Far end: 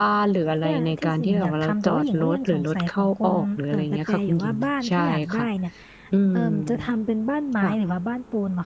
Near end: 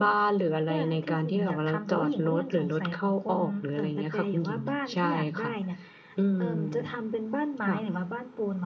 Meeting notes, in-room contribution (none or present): none